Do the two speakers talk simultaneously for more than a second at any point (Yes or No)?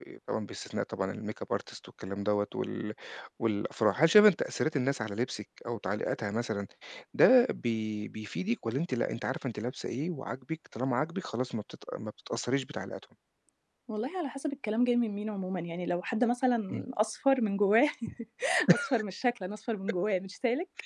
No